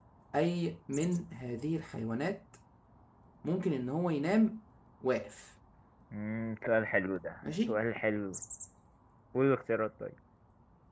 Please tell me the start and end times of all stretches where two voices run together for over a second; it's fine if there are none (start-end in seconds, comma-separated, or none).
none